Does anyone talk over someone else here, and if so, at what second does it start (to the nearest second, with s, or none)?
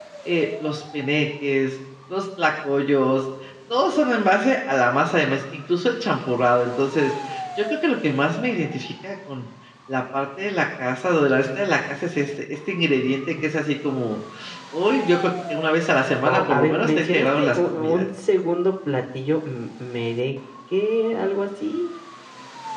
16 s